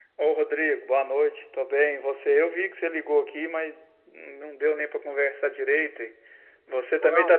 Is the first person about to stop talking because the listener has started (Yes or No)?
No